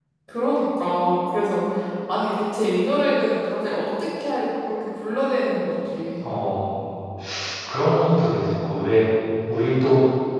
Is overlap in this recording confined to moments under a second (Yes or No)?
Yes